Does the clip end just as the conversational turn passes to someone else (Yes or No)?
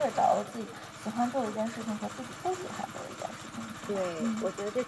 Yes